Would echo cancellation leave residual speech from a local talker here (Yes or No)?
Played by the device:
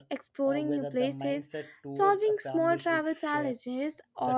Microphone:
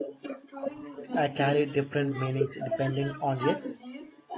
Yes